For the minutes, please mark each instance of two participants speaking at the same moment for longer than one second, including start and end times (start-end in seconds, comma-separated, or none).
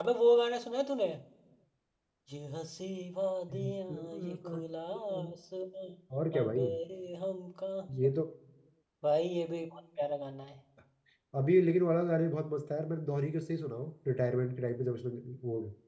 3.5-5.4